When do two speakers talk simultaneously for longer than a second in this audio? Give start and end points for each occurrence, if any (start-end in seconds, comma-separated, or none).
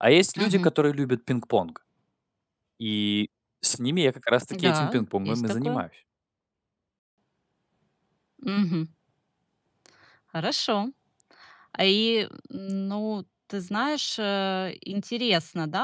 4.5-5.8